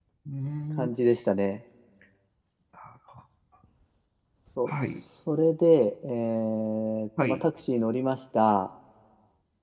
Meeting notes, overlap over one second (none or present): none